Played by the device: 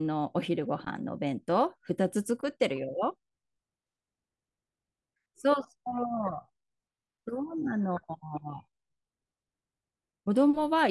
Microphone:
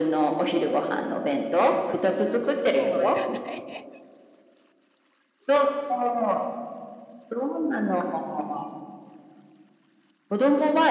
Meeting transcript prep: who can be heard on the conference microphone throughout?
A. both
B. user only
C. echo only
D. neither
A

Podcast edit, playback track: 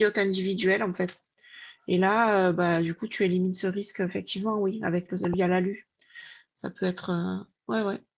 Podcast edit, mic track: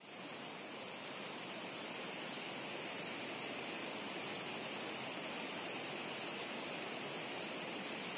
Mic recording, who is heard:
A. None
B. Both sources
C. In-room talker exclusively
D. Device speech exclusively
A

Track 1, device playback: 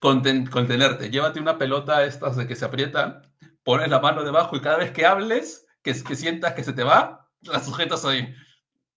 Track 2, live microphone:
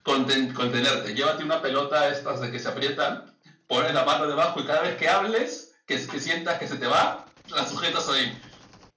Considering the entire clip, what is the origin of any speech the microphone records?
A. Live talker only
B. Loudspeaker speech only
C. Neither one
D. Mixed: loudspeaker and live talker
B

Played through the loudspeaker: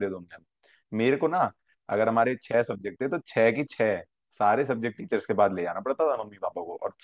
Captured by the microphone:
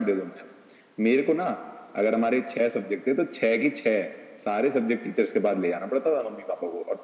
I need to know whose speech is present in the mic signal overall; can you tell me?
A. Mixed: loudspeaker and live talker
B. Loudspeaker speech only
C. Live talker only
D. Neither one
B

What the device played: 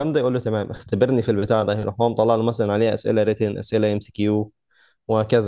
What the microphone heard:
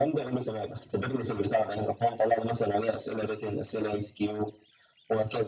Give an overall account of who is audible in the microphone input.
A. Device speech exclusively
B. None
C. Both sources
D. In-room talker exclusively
A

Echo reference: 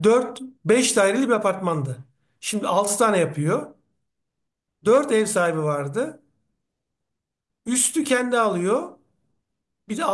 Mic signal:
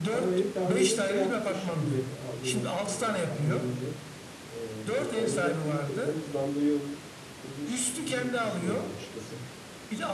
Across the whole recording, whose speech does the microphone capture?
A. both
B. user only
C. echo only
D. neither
A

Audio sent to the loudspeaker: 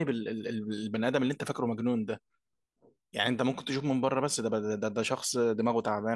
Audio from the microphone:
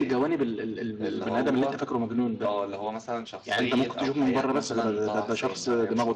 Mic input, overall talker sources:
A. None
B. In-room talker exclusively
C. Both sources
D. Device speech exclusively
C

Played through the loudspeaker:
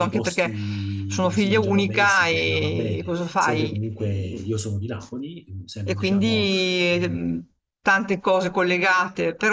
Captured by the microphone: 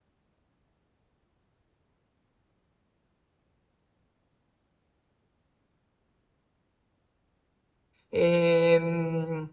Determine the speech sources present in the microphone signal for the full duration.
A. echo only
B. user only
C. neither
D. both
B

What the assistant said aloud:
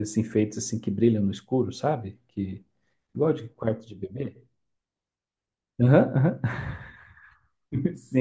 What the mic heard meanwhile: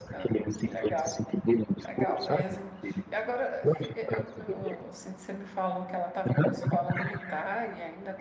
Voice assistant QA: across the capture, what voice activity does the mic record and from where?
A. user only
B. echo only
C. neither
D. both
D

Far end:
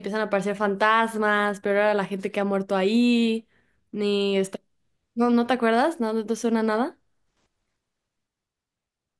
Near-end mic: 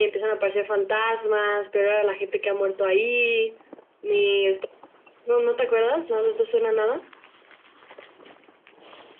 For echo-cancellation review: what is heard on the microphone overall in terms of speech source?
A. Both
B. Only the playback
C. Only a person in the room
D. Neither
B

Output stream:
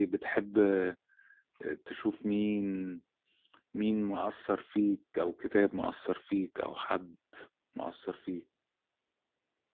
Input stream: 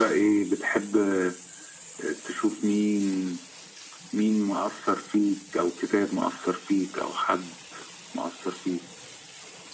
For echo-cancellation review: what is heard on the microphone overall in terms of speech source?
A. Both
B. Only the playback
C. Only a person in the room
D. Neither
B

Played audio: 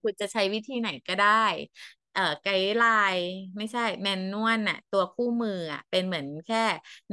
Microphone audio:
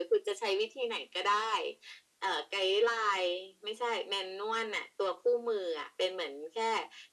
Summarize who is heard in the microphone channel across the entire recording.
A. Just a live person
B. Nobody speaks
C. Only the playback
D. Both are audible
C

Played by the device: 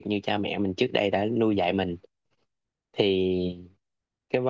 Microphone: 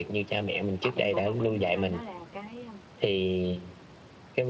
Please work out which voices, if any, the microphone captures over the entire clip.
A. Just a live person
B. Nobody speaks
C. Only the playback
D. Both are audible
D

